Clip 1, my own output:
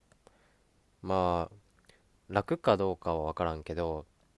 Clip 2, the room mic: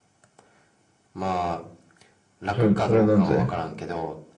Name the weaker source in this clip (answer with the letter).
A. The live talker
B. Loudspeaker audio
B